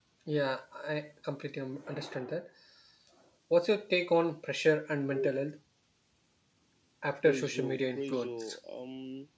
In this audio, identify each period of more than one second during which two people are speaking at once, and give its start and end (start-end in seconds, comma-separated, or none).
7.2-8.6